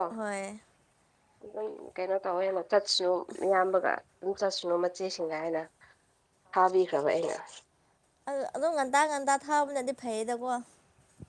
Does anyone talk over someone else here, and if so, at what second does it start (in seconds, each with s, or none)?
none